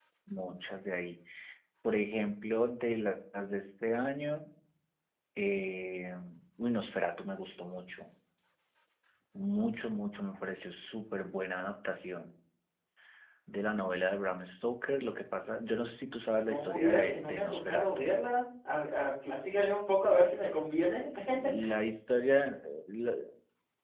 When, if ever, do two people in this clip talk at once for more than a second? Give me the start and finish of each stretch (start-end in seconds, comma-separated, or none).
16.5-18.1